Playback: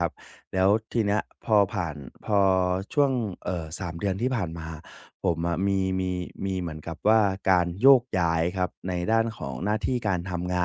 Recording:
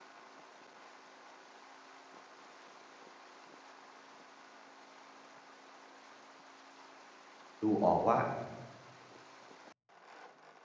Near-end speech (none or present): present